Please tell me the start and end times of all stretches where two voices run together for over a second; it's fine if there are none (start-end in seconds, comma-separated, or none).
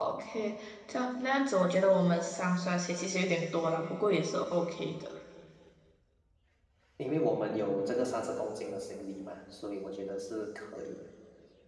none